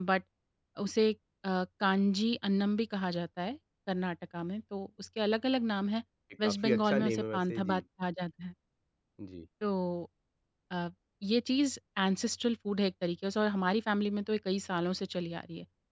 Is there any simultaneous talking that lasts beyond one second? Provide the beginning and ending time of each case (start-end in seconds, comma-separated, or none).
6.4-7.8